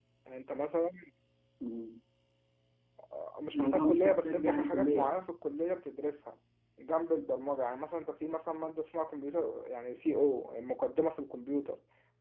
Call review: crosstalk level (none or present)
present